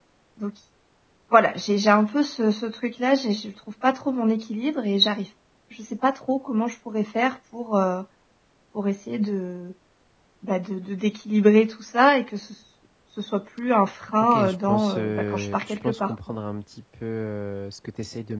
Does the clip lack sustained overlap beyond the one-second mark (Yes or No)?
No